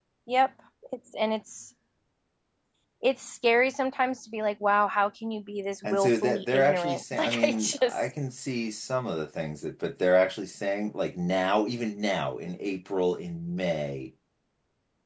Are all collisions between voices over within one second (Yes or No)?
No